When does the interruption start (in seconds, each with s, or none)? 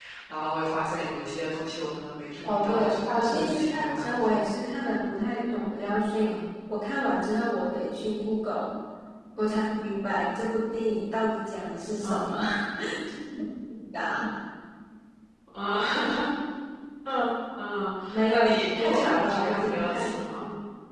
2.4 s